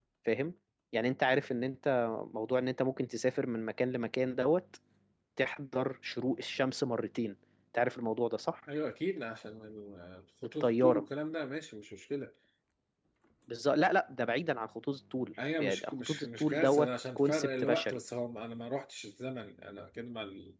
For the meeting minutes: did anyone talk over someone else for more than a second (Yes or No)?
Yes